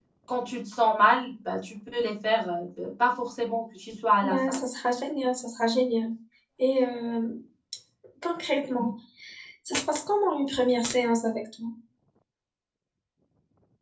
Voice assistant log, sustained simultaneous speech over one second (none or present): none